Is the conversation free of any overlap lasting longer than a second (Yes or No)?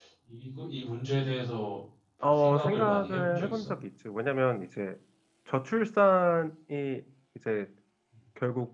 No